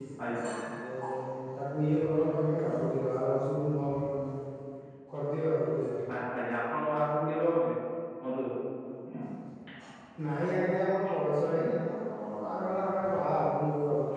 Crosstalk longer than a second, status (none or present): none